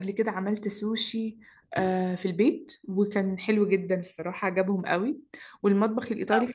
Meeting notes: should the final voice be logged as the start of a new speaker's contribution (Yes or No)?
No